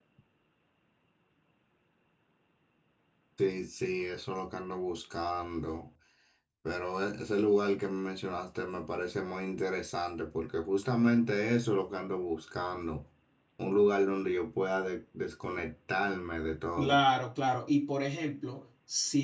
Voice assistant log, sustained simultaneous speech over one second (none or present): none